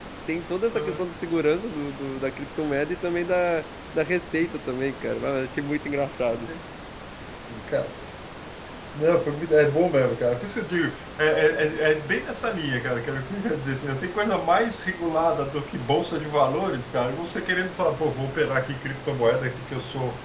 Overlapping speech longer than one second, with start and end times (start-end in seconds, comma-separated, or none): none